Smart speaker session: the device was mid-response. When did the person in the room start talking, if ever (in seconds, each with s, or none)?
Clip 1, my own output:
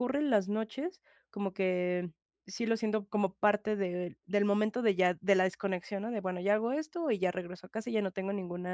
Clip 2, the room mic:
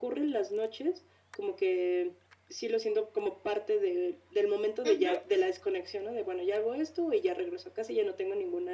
4.8 s